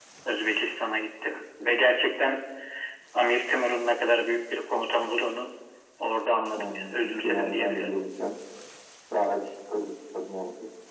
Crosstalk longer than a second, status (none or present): present